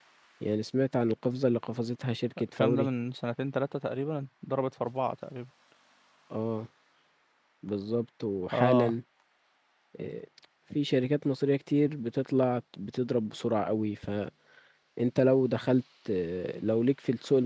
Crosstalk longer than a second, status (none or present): none